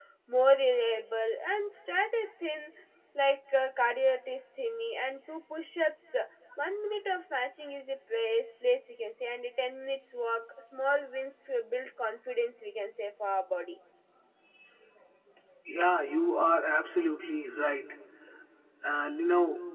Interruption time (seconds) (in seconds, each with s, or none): none